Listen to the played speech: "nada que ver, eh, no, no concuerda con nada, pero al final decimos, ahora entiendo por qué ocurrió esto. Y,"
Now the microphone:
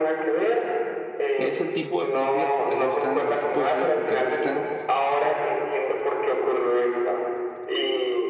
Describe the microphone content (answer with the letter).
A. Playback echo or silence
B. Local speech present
B